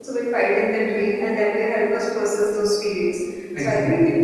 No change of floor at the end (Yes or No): Yes